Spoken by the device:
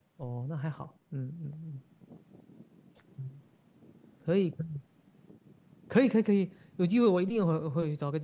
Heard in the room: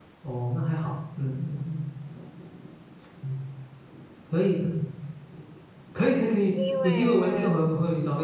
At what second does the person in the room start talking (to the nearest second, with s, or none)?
7 s